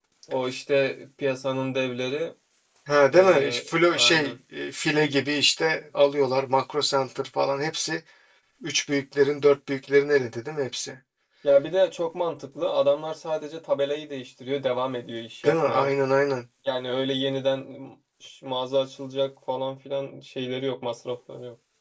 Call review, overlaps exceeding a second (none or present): present